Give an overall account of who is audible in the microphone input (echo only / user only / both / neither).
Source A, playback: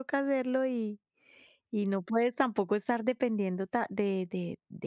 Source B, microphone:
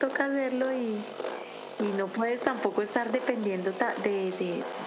echo only